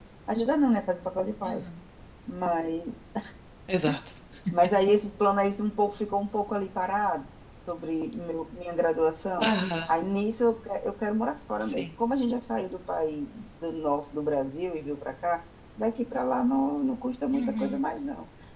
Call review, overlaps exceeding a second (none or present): none